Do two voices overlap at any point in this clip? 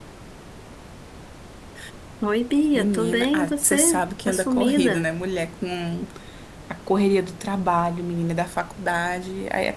Yes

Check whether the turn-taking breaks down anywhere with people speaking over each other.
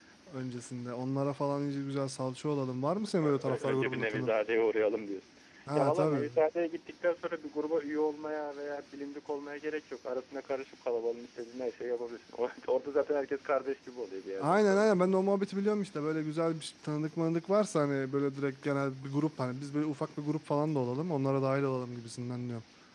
Yes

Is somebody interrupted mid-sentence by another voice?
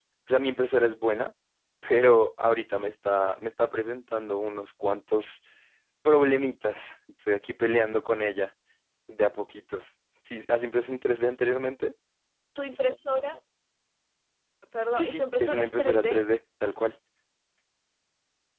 Yes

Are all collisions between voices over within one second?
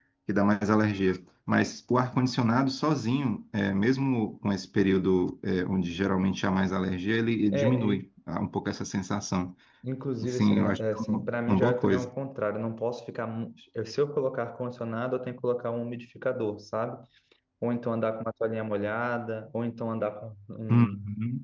No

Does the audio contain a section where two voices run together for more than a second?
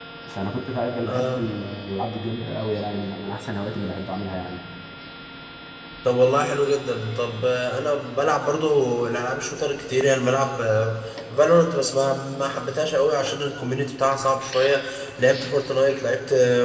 No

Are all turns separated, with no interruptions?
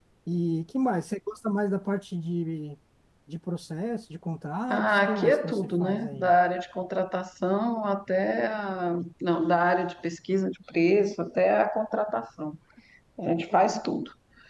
No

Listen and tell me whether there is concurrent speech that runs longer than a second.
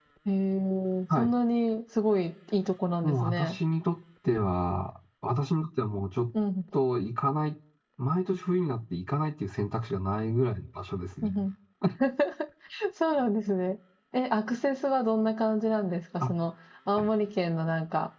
No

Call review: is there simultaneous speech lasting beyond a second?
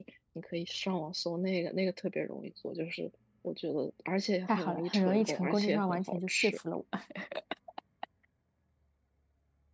Yes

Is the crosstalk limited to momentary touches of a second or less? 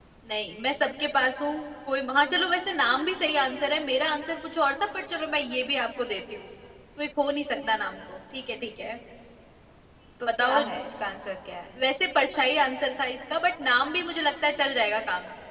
Yes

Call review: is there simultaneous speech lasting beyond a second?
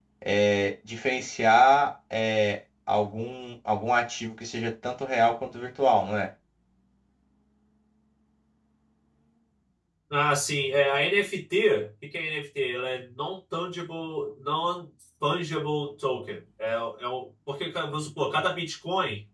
No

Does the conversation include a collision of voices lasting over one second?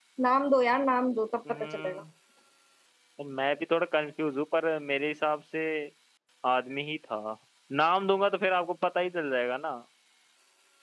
No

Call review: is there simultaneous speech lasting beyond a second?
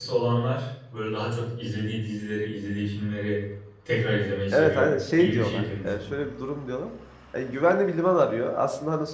Yes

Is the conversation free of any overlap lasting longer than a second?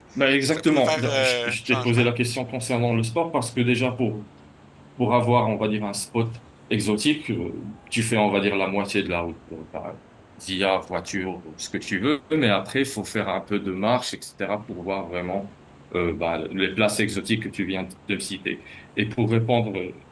No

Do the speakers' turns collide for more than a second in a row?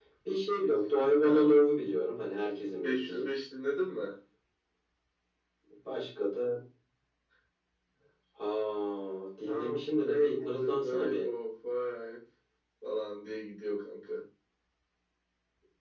Yes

